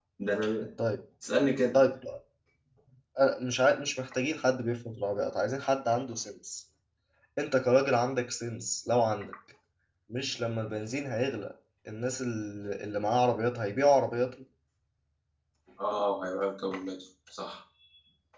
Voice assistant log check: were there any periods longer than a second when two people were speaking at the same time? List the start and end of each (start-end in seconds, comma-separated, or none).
none